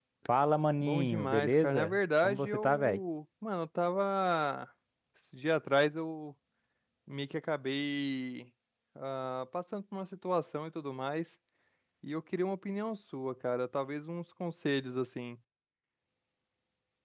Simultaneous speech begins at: 0.8 s

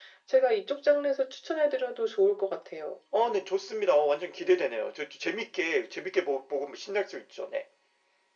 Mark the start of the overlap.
none

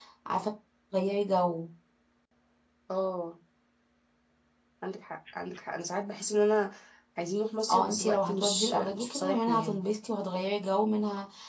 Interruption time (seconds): 7.7 s

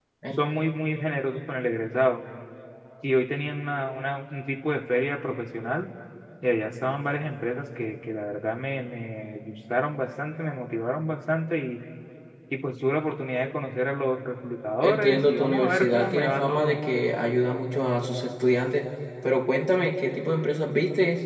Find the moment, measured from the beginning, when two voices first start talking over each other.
14.8 s

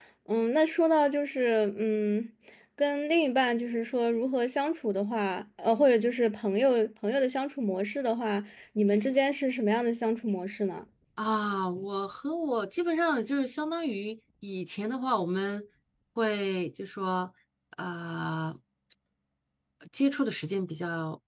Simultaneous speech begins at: none

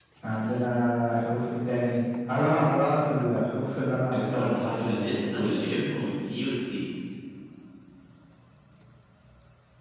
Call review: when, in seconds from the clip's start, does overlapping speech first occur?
4.1 s

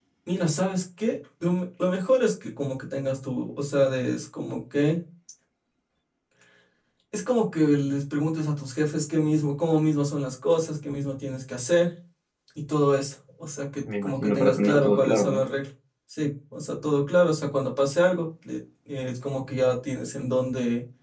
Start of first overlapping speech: 13.8 s

